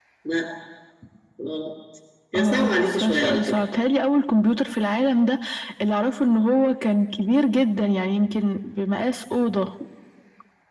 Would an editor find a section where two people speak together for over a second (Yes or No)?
Yes